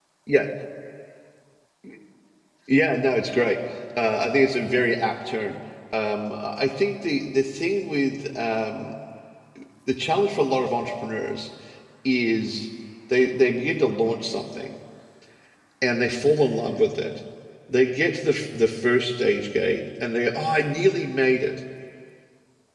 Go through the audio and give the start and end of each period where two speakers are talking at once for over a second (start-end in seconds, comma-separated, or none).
none